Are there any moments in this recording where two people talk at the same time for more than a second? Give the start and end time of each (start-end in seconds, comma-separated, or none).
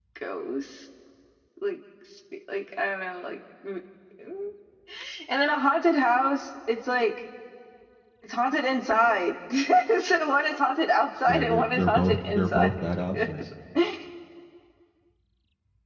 11.3-12.7